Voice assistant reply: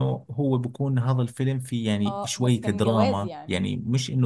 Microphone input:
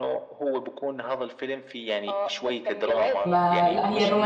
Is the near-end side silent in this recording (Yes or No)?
No